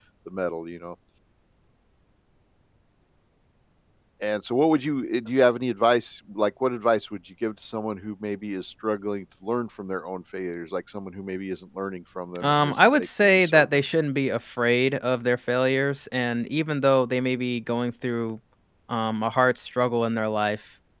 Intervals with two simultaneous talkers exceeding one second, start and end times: 12.4-13.8

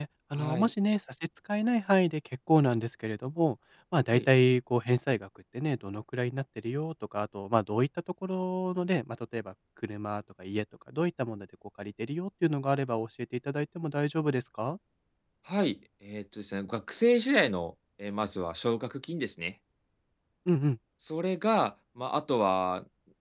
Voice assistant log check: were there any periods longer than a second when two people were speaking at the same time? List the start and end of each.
none

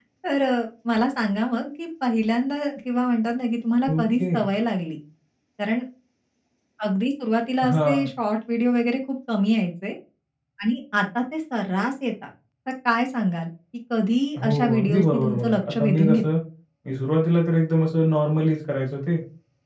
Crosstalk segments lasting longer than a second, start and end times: 14.4-16.2

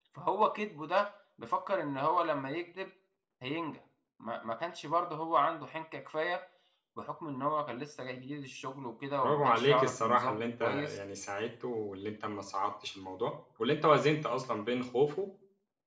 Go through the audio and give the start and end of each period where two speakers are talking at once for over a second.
9.2-11.0

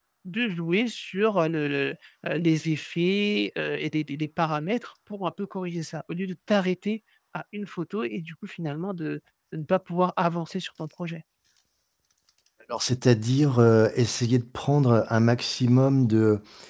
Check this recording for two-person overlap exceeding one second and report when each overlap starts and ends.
none

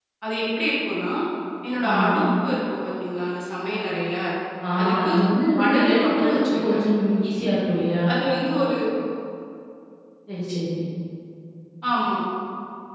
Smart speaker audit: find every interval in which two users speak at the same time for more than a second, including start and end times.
5.6-6.8

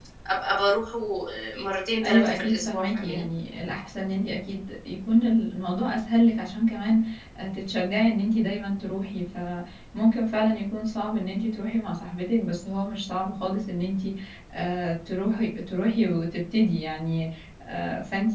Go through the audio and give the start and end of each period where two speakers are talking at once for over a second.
2.0-3.2

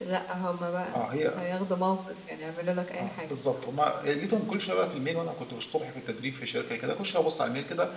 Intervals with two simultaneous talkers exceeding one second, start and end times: none

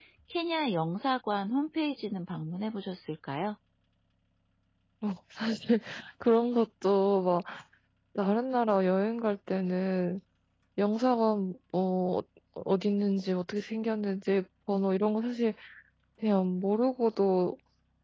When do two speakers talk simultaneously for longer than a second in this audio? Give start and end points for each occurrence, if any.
none

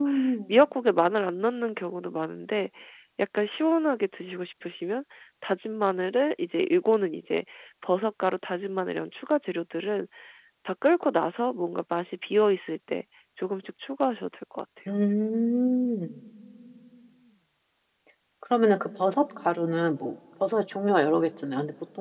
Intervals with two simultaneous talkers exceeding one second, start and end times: none

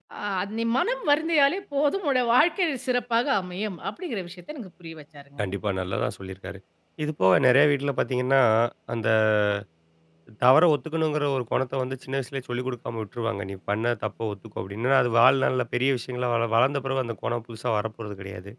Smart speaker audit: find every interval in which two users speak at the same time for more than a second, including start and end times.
none

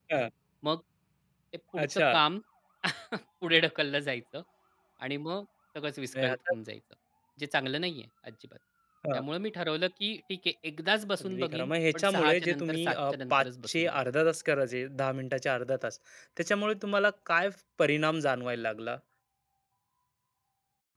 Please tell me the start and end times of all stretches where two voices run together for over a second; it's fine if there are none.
11.2-14.0

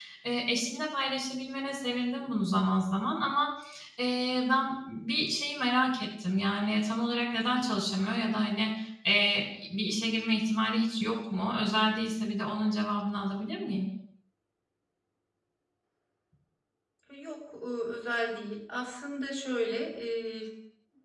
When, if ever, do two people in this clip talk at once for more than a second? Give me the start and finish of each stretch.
none

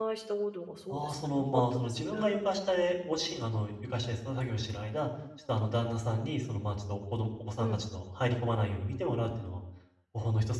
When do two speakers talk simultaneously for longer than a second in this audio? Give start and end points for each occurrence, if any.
0.9-2.1

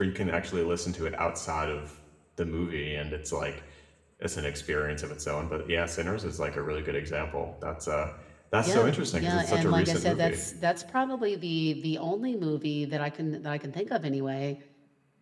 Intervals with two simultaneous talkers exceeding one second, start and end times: 8.6-10.4

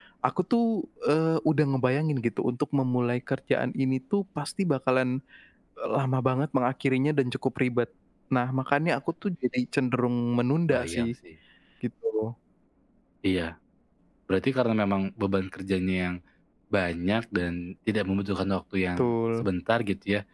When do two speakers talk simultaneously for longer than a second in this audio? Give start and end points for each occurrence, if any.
none

